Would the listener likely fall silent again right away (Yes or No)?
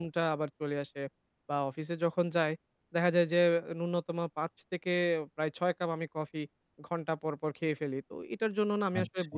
Yes